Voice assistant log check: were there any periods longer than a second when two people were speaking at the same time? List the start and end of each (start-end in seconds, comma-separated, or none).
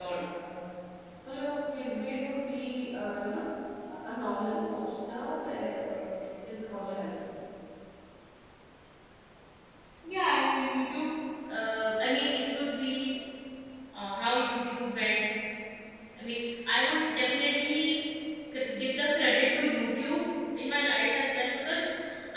none